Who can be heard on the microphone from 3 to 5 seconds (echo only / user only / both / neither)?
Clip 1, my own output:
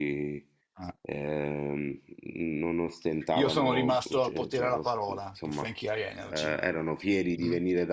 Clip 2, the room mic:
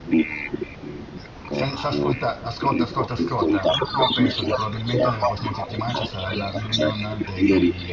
both